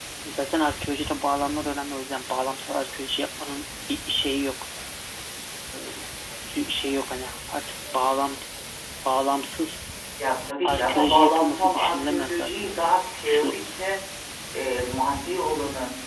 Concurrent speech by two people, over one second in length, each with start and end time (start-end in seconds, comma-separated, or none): 10.6-12.7